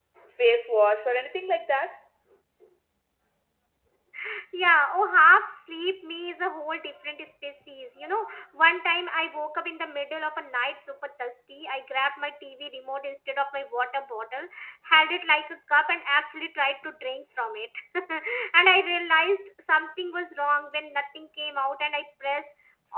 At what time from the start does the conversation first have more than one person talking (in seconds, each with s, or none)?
none